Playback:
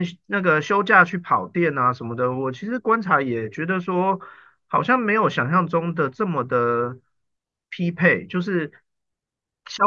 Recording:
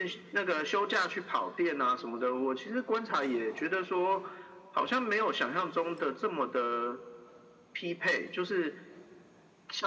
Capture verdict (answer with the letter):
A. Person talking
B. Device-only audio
B